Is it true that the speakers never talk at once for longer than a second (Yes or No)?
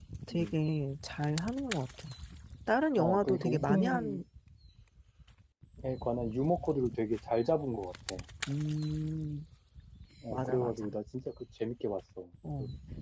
No